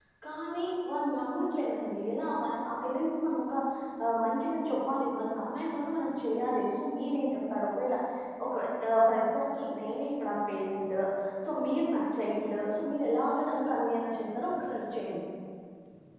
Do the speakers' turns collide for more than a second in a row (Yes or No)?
No